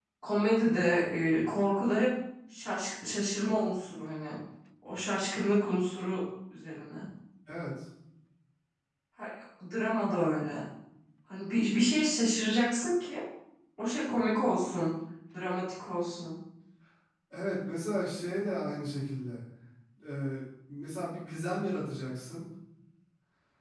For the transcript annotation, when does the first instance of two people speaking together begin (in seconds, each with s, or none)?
none